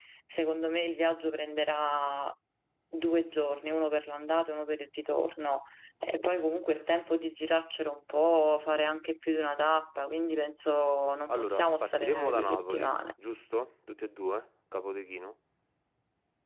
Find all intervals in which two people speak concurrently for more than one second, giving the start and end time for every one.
11.3-12.9

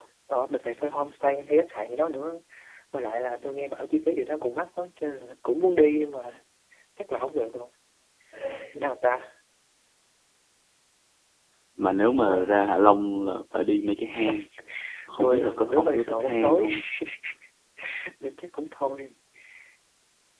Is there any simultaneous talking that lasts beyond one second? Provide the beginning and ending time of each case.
15.2-16.7

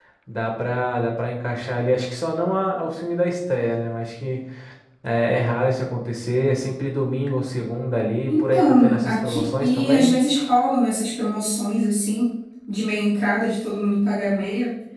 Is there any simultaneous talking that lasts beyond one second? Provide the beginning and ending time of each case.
8.3-10.1

